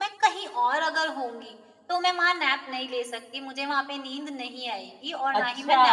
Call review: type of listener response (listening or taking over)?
taking over